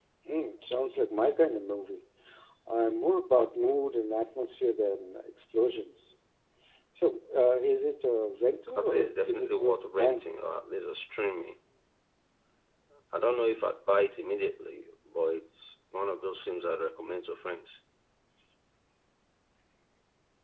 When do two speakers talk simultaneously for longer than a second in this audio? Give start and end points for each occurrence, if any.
8.8-10.2

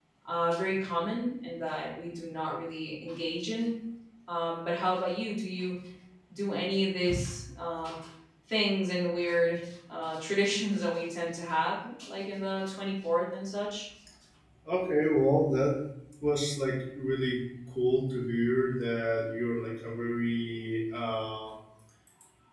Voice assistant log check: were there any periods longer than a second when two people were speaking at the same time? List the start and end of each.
none

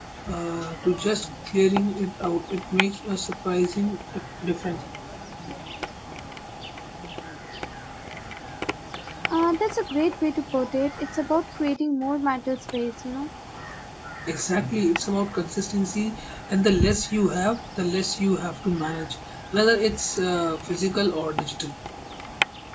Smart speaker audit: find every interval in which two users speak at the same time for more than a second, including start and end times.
none

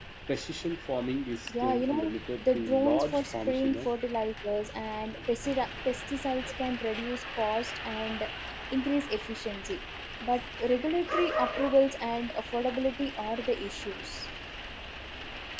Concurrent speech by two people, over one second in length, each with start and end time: 1.6-3.9

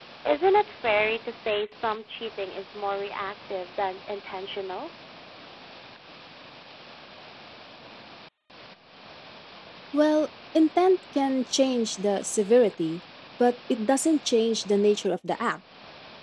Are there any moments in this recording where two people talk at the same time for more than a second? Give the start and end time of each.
none

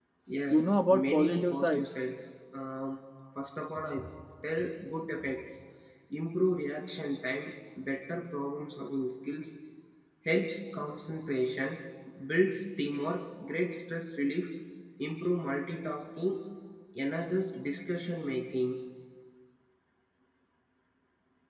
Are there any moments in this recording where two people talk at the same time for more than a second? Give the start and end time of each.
0.5-1.8

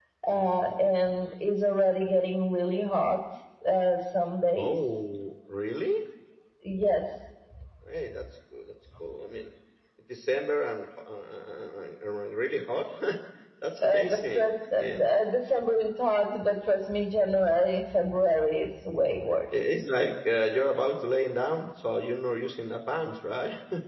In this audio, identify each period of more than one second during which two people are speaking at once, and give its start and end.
13.8-15.1

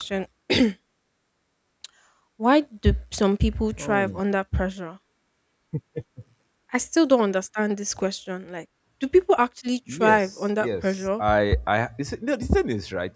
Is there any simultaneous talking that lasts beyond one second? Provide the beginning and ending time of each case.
9.9-11.2

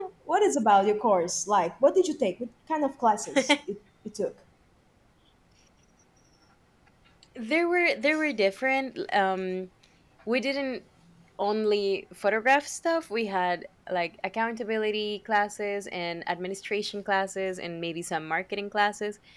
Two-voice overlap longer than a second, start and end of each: none

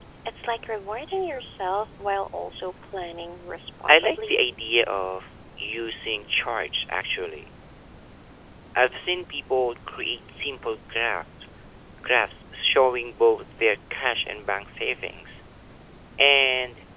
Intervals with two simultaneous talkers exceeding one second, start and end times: none

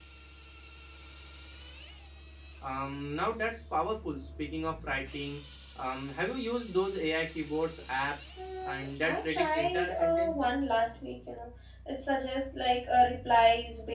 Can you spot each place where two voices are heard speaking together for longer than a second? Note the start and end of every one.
8.6-10.5

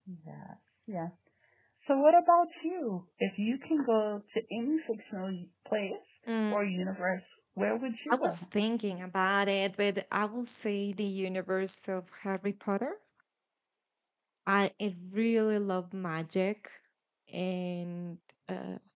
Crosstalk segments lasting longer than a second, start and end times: none

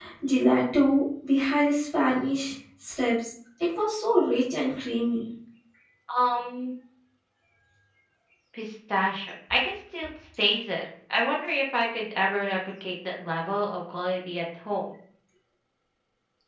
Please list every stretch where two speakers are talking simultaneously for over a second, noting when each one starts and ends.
none

